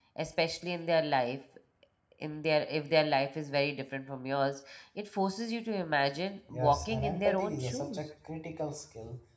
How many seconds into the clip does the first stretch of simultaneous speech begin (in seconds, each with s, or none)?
6.5 s